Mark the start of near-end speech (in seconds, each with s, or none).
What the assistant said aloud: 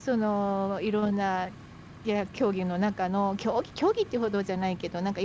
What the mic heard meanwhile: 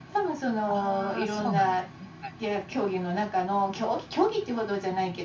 0.7 s